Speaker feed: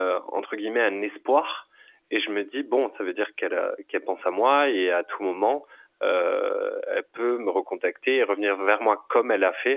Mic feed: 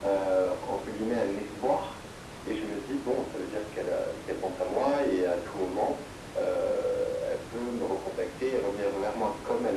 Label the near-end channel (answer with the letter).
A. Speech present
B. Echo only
B